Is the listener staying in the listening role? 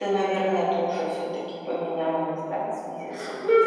No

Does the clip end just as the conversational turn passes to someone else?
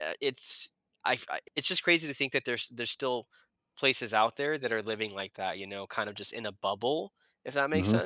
Yes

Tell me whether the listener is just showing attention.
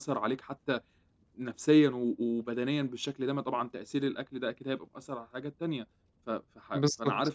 Yes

